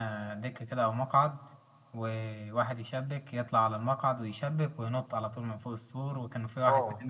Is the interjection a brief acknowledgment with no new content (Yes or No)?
No